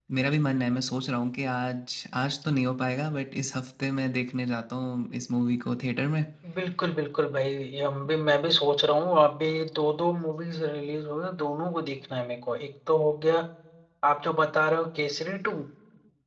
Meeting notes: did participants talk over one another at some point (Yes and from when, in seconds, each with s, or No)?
No